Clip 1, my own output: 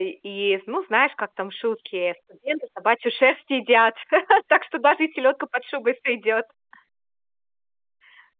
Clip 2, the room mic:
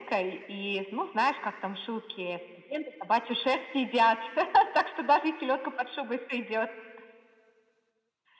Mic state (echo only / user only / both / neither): echo only